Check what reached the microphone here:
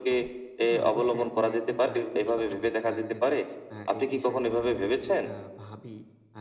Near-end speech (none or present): present